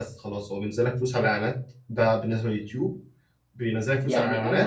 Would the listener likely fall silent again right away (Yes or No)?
No